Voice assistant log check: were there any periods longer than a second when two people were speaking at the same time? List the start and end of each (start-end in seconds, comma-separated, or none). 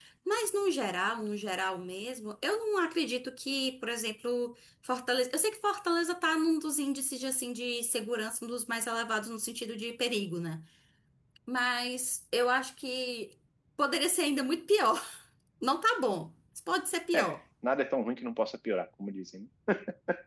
none